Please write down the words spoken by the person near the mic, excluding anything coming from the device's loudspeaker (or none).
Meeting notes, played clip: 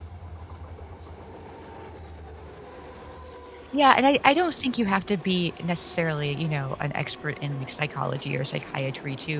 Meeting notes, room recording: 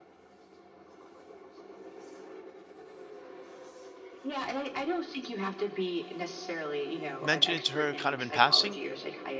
mention it to her kind of in passing,